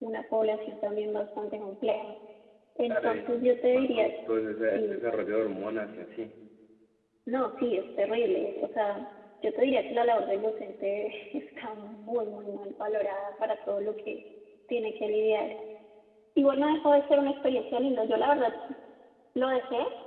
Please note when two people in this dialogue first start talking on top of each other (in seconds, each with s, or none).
2.9 s